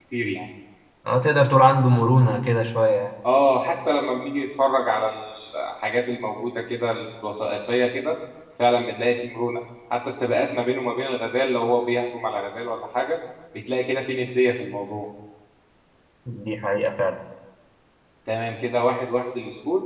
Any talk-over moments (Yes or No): No